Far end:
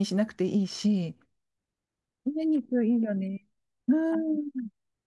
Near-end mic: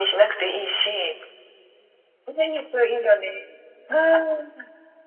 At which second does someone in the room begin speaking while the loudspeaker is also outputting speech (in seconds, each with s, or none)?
none